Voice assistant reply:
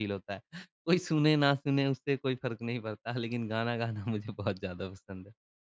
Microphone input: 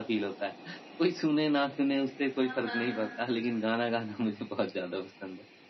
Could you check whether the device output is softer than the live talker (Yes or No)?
No